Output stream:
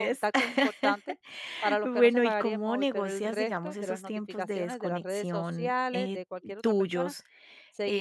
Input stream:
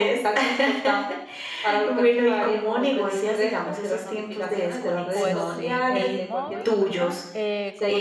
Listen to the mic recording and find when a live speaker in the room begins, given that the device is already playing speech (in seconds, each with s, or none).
5.1 s